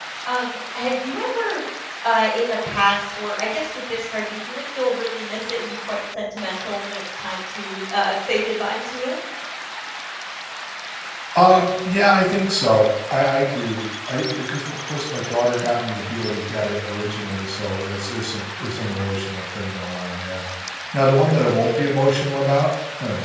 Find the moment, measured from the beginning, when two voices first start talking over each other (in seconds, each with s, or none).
none